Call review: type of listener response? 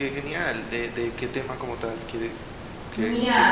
taking over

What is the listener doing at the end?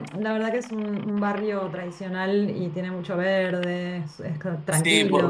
taking over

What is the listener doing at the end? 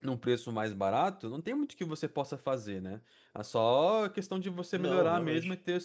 listening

